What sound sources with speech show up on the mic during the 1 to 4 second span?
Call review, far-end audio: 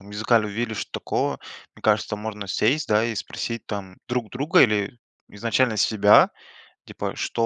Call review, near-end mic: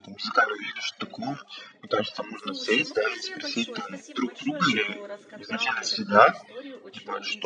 both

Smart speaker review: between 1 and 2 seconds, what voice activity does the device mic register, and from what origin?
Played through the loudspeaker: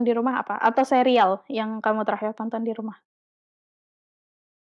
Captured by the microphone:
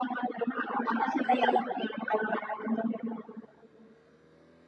both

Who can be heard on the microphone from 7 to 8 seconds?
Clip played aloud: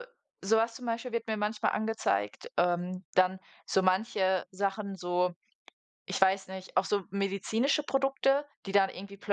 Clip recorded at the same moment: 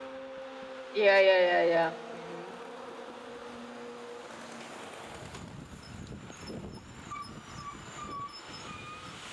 neither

